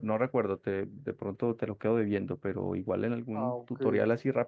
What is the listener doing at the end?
listening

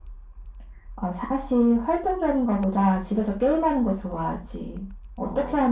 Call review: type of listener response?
listening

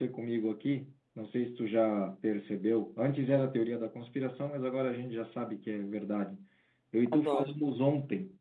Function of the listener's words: listening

